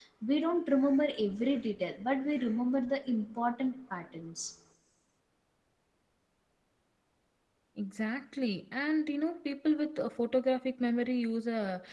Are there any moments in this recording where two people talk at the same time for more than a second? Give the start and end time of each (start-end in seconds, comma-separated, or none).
none